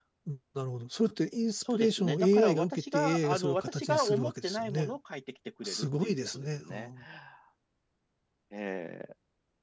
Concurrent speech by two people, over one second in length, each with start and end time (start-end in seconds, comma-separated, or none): 1.7-4.9, 5.6-6.9